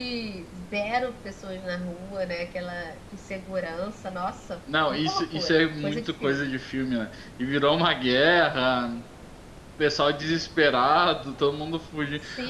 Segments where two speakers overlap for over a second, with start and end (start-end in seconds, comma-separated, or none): 4.9-6.5